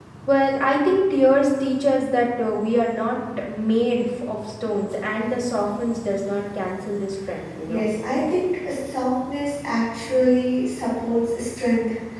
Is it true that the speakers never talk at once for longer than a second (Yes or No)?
Yes